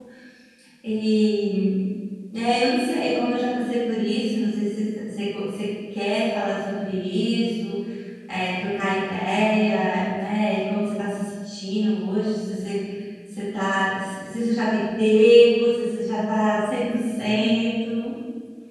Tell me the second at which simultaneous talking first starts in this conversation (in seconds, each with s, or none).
none